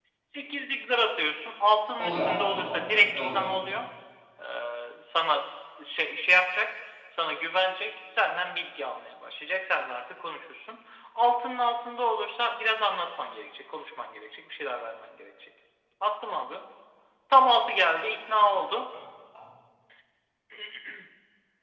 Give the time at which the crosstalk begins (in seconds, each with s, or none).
2.0 s